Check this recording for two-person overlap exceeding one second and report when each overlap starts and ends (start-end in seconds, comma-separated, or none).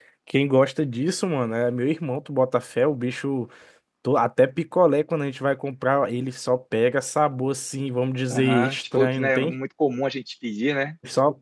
8.3-9.5